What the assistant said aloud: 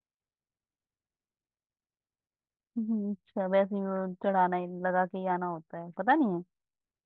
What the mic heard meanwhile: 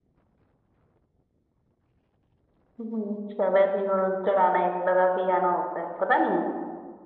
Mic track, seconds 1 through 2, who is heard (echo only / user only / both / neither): neither